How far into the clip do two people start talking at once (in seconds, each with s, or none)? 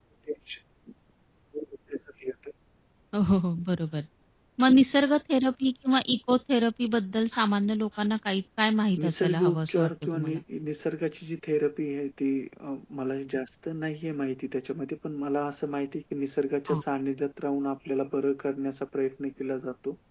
9.0 s